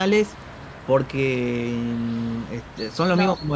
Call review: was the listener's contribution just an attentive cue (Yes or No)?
Yes